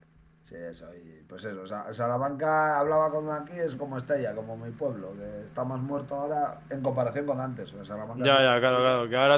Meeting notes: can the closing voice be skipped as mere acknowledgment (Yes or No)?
No